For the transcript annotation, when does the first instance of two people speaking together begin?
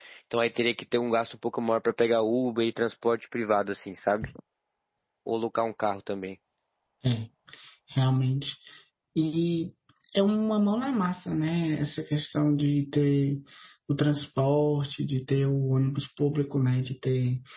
none

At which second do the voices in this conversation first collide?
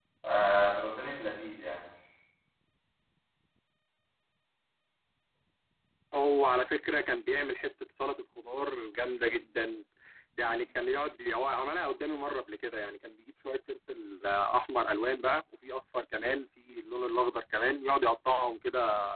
none

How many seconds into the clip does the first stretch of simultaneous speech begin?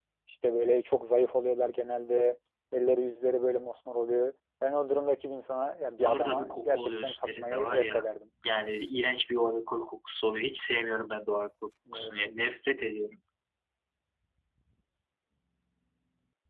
6.0 s

